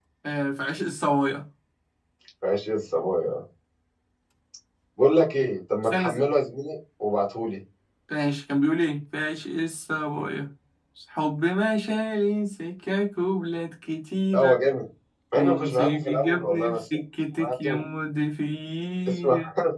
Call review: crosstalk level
present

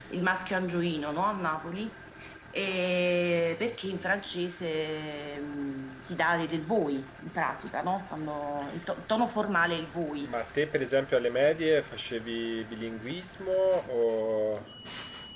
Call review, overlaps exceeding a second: none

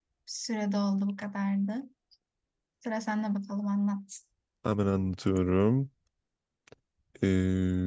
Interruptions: none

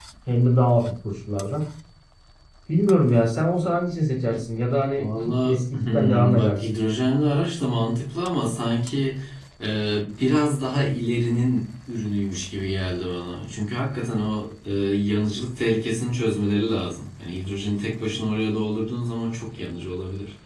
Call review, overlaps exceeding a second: present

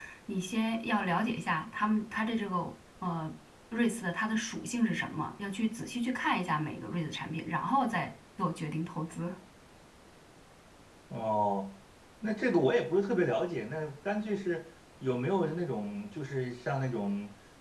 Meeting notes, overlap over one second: none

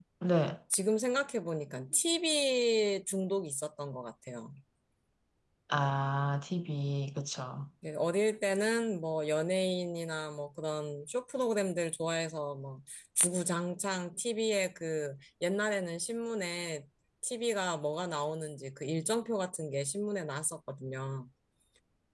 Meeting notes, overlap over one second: none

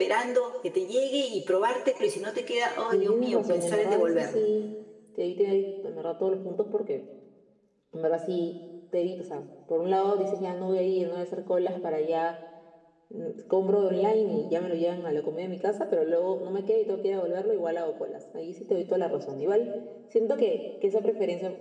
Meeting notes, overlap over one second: present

